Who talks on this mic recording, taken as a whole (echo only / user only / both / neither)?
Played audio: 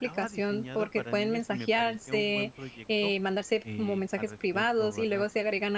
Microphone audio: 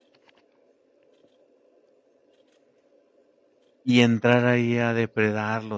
user only